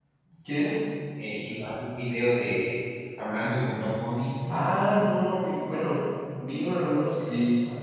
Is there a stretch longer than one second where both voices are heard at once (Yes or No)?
No